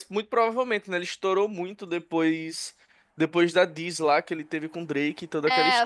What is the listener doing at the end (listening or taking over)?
taking over